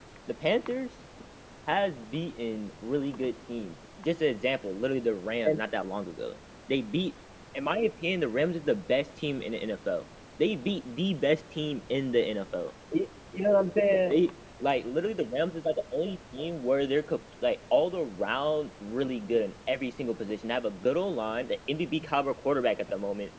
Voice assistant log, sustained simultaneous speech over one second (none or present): none